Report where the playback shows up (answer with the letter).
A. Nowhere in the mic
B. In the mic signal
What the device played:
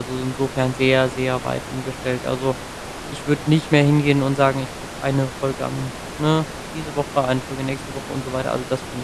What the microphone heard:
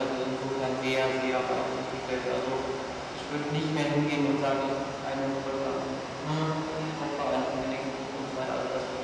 B